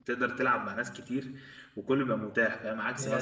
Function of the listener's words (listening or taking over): listening